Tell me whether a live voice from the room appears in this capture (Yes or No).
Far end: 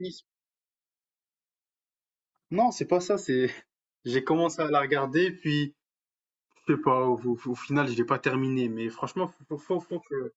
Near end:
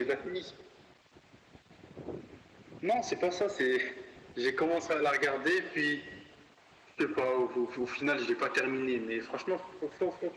No